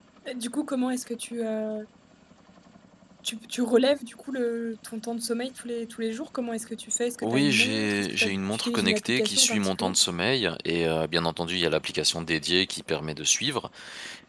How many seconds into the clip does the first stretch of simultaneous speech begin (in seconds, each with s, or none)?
7.2 s